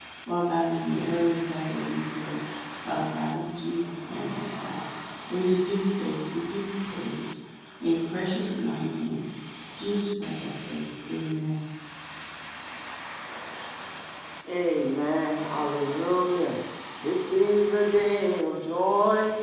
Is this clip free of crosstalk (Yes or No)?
Yes